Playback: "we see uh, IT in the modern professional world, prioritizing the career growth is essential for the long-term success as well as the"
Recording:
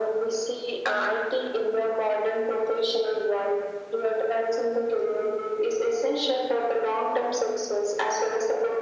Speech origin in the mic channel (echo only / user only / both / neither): echo only